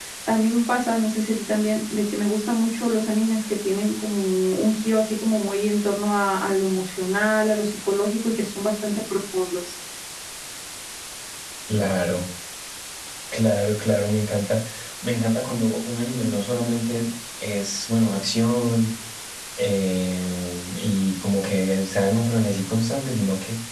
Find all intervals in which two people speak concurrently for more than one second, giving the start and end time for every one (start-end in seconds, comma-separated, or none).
none